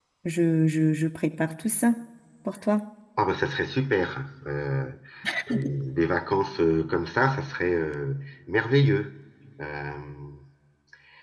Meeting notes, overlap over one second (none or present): none